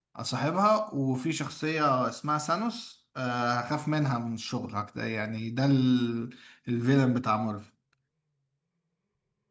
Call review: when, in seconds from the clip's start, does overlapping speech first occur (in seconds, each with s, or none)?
none